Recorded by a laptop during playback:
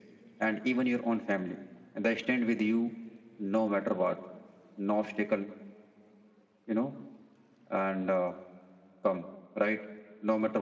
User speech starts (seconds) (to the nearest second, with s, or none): none